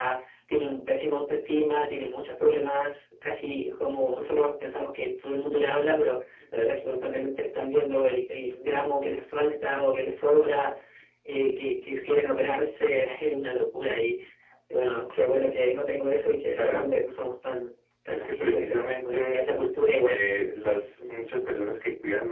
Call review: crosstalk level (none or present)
present